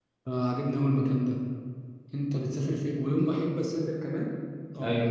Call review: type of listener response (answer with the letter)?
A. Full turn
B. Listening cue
B